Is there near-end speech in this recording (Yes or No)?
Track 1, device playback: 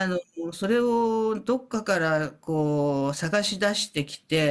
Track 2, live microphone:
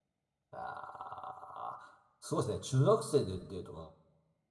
Yes